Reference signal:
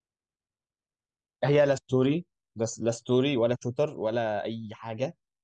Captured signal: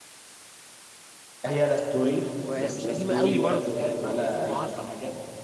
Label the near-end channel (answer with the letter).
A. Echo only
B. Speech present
B